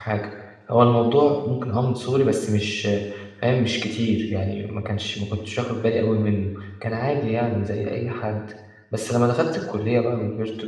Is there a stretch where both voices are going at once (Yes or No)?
No